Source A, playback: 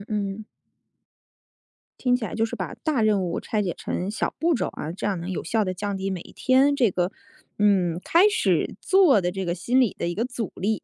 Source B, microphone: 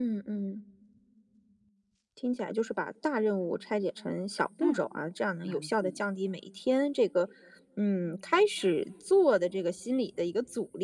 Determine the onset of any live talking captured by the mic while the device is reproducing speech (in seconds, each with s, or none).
4.6 s